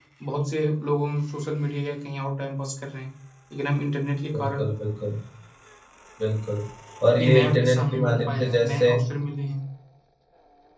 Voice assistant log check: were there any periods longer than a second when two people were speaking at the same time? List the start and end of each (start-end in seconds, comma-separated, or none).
7.2-8.9